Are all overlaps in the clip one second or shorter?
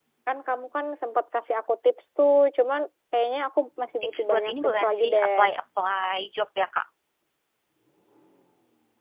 No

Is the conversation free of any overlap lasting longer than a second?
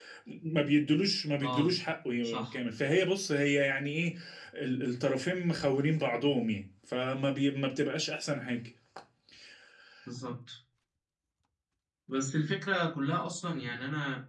Yes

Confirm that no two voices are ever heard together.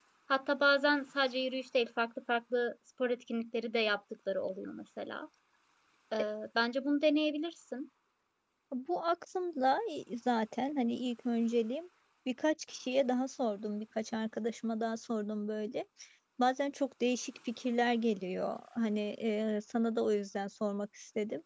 Yes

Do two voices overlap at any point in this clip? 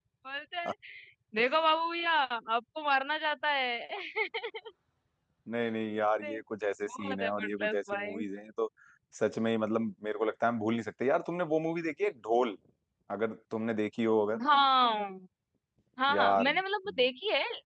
Yes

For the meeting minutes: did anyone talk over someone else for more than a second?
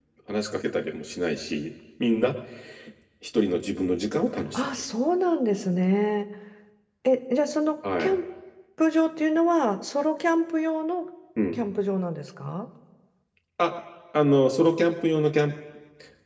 No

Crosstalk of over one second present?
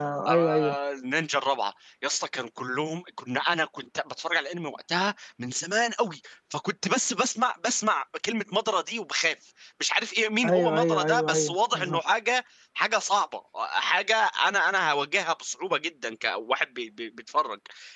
Yes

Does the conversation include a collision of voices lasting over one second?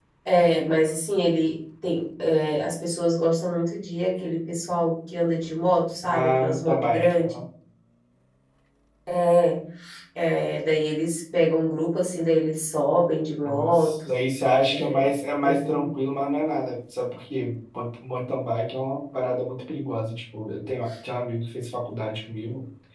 Yes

